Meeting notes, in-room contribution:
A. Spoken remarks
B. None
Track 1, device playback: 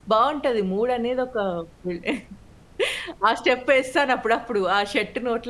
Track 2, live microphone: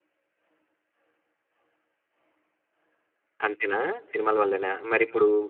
A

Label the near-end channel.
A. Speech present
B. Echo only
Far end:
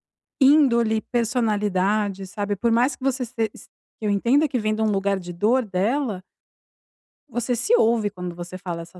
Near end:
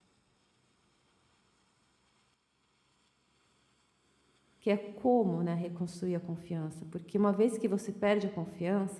A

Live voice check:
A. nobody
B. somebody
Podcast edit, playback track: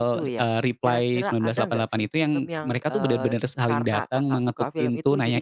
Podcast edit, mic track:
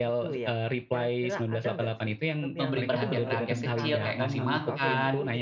B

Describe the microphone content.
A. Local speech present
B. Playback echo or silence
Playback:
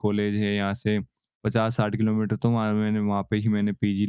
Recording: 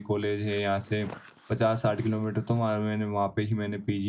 B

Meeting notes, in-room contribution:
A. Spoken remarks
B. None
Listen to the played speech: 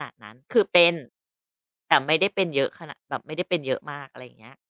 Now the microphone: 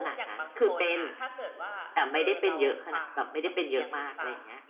A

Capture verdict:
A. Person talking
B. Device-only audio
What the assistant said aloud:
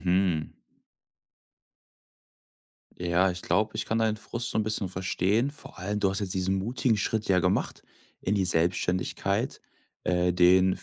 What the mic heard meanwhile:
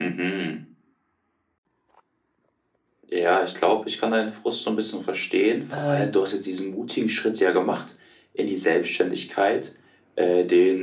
A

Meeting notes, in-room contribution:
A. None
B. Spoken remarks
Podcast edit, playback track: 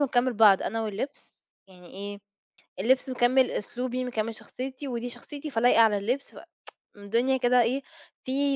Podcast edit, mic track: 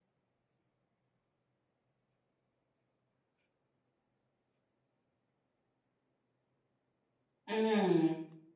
B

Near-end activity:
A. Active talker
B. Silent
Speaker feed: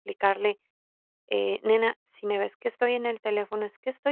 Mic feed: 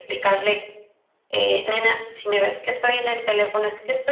B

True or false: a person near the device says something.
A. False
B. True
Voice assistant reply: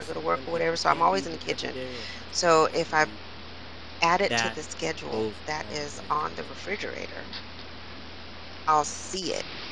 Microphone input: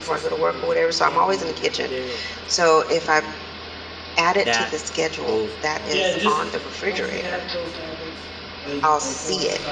B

